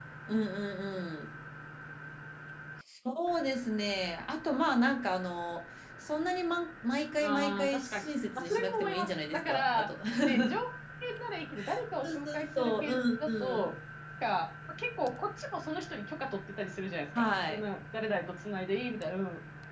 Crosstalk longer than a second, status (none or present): present